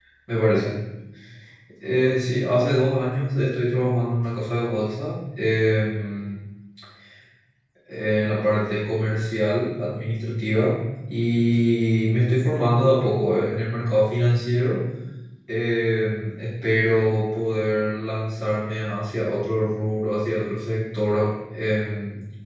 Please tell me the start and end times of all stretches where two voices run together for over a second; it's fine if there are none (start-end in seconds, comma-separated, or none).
none